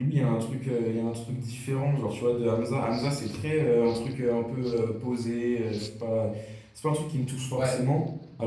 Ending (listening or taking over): listening